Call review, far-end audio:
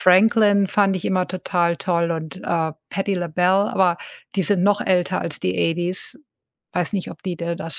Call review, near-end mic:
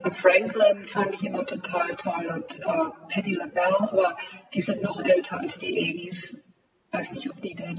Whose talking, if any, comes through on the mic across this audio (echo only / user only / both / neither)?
echo only